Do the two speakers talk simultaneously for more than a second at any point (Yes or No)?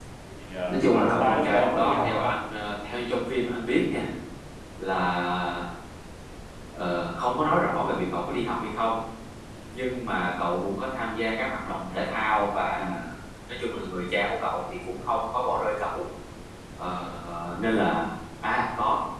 Yes